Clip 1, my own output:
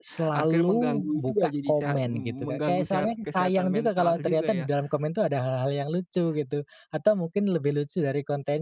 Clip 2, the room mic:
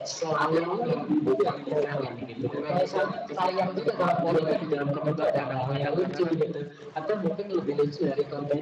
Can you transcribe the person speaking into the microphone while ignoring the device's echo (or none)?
report tapi mung juga kadang-kadang, karena kan